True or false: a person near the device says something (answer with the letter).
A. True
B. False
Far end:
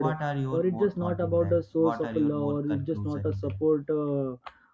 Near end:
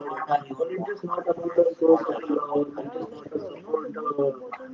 A